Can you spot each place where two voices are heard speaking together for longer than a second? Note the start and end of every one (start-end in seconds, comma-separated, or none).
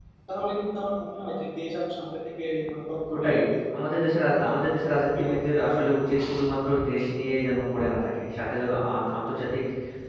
none